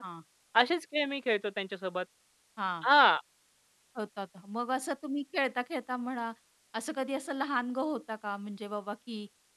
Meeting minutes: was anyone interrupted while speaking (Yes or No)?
No